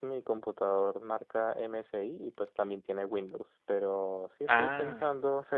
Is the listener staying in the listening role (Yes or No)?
Yes